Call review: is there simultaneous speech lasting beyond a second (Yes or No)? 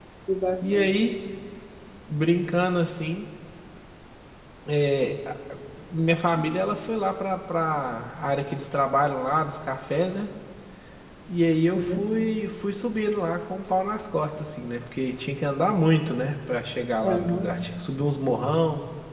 No